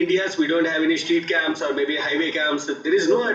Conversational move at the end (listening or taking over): taking over